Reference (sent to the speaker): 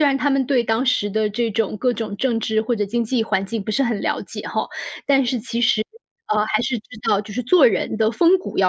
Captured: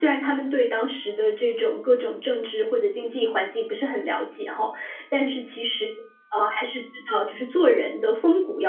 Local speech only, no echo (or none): none